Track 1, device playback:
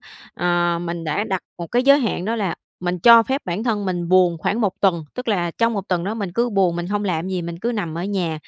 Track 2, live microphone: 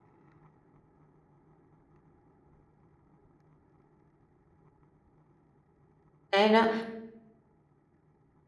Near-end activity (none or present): present